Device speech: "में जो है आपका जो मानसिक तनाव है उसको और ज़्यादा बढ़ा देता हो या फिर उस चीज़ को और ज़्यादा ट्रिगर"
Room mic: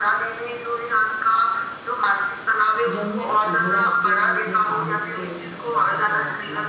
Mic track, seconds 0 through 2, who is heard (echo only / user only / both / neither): echo only